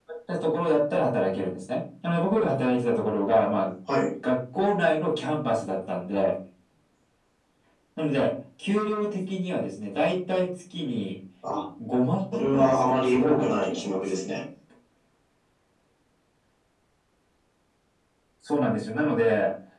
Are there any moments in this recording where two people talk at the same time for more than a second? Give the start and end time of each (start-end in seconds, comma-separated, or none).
12.3-14.1